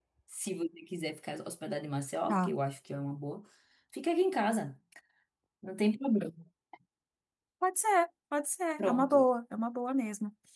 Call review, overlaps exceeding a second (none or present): none